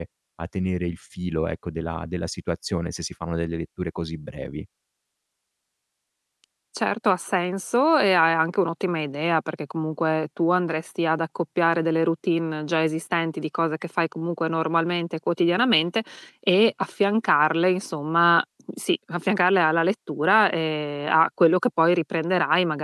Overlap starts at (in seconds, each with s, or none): none